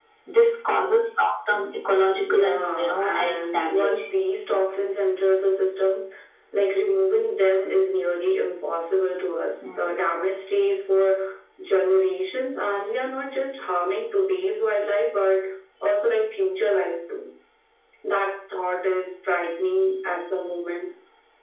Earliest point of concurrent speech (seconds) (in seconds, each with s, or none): 2.3 s